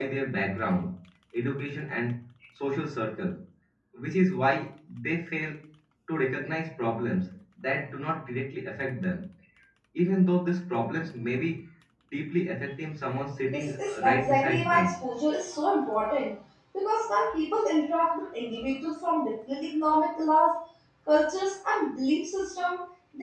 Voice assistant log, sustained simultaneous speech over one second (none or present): present